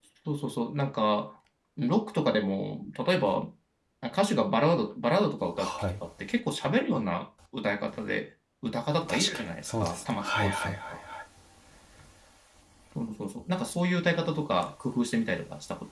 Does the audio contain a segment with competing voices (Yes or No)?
Yes